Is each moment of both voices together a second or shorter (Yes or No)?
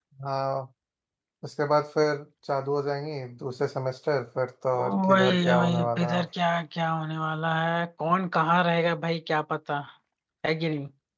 No